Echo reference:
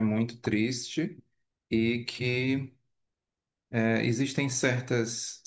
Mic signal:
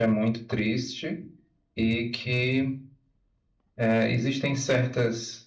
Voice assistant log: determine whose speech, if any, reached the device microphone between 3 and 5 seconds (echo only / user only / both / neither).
echo only